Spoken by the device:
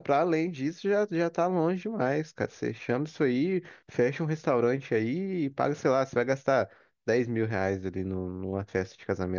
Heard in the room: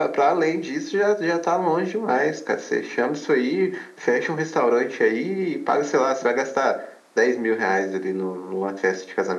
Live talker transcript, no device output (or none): none